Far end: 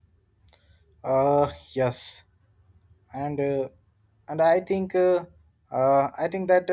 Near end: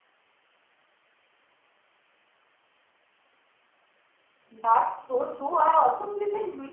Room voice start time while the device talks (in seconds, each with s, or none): 4.5 s